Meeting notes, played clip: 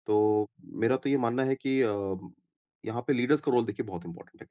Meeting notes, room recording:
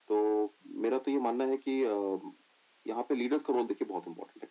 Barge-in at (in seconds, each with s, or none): none